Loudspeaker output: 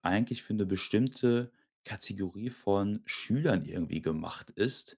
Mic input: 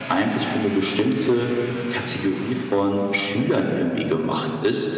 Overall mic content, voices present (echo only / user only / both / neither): echo only